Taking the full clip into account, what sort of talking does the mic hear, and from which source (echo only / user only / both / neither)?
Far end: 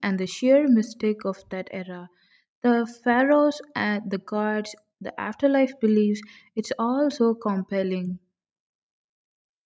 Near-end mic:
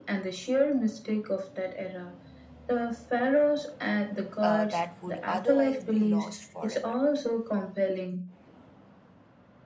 both